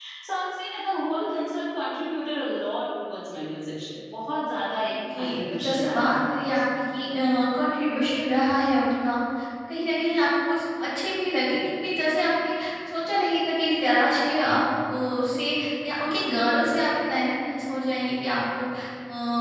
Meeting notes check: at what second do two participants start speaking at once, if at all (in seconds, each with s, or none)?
4.9 s